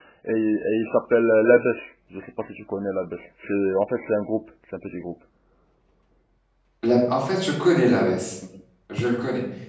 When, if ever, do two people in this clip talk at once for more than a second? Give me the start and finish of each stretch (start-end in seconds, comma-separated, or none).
none